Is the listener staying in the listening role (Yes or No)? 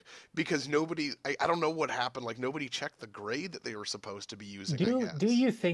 No